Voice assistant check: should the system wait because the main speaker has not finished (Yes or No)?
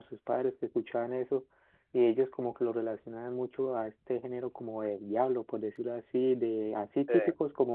Yes